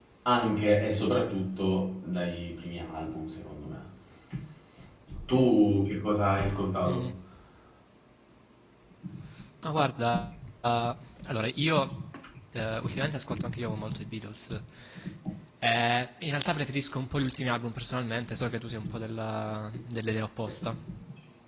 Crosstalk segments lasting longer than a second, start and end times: none

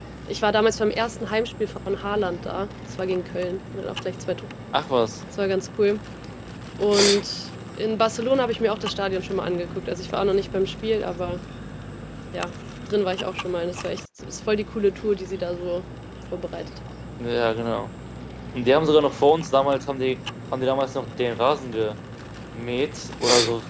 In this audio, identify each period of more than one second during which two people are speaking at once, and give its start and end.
none

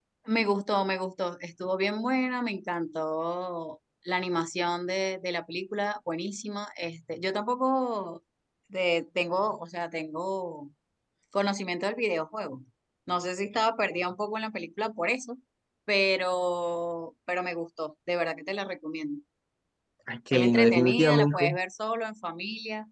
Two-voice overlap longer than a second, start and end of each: 20.3-21.6

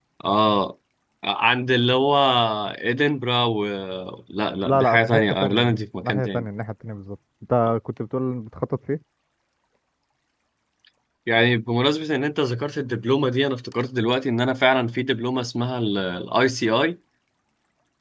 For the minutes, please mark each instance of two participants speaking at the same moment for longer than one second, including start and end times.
4.6-6.5

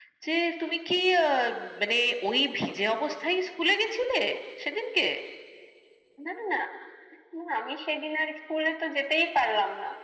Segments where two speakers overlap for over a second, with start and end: none

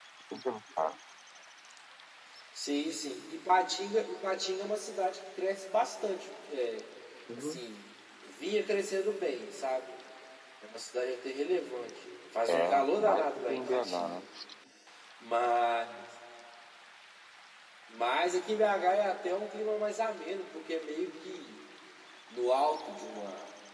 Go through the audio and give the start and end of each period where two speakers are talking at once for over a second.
12.5-14.2

